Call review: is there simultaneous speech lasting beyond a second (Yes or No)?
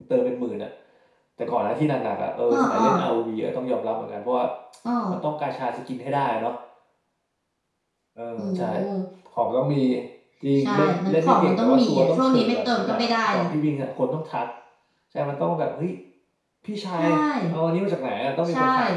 Yes